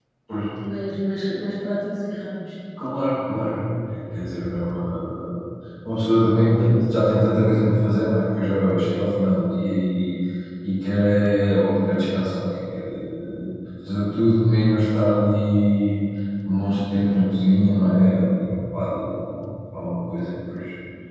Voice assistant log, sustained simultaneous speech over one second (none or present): none